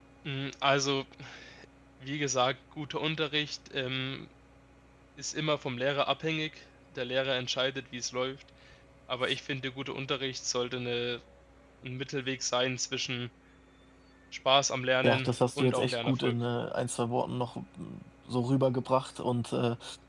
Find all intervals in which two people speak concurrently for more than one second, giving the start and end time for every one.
15.0-16.3

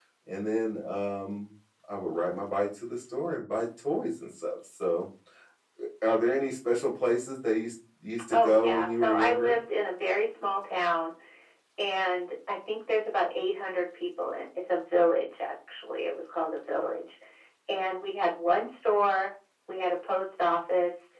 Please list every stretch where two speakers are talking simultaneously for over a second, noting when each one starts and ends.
8.3-9.5

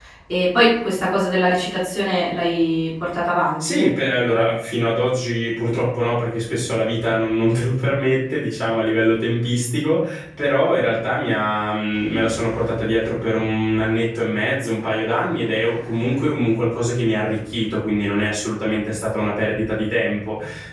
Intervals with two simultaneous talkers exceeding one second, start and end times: none

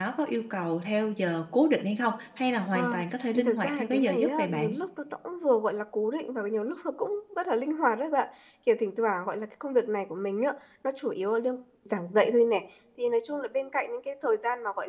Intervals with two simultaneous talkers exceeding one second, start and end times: 3.4-4.8

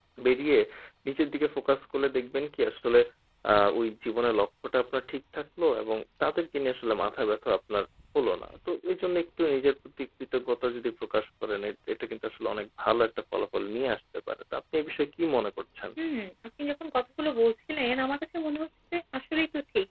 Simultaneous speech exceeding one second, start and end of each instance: none

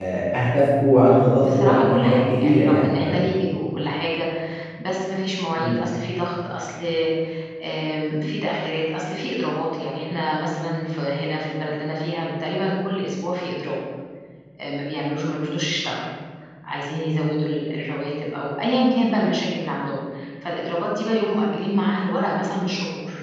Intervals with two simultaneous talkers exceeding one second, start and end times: 1.4-3.2

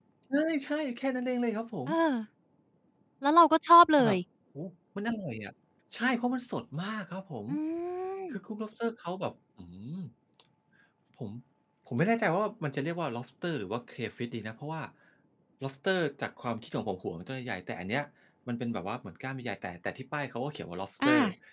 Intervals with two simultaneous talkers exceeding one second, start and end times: none

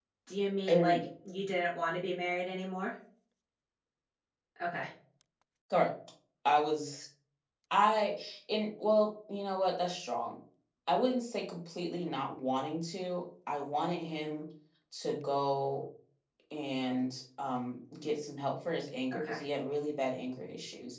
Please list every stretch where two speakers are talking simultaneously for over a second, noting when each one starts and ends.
none

